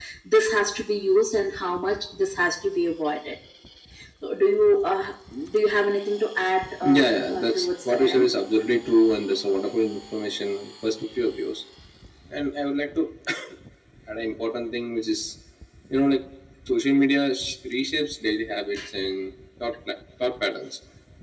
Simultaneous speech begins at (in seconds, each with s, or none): 6.8 s